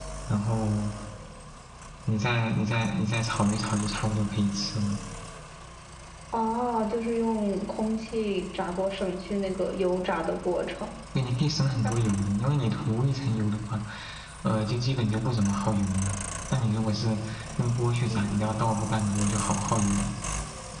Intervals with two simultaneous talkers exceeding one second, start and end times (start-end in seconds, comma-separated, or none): none